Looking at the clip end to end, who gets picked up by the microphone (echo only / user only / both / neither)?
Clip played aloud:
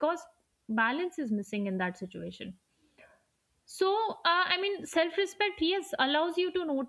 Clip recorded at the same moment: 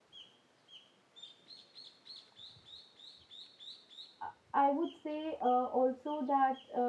user only